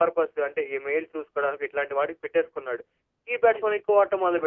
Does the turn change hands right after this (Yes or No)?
No